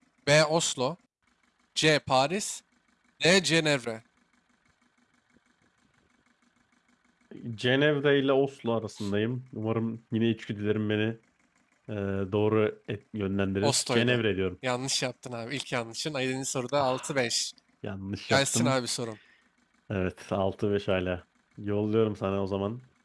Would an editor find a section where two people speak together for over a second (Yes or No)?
No